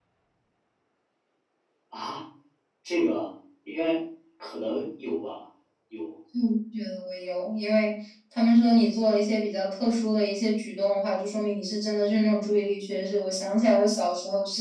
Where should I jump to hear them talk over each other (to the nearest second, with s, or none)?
none